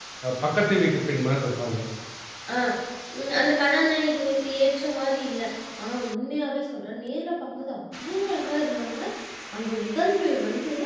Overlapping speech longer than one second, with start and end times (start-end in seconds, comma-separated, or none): none